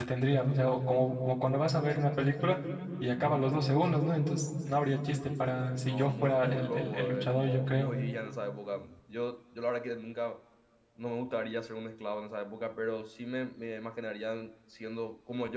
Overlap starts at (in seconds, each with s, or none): 5.8 s